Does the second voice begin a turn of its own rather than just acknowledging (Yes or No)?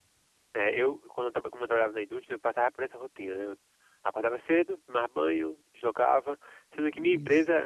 No